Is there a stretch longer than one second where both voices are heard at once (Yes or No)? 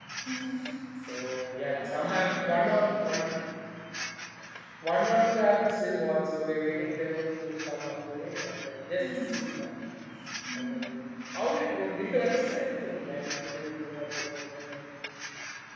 Yes